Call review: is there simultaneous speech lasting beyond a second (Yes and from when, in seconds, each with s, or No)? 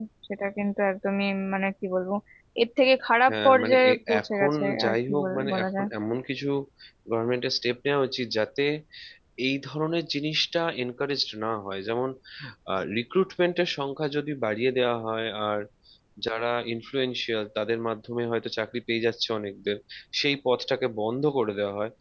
Yes, from 3.3 s